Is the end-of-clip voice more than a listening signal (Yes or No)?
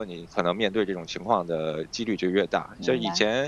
No